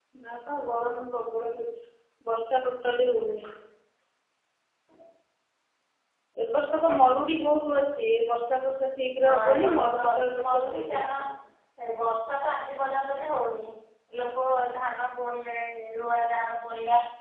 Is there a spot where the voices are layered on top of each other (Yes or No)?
Yes